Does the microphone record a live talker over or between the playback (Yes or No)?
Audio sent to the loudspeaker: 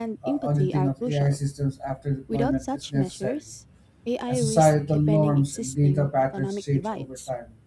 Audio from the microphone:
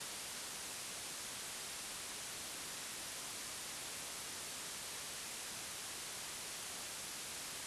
No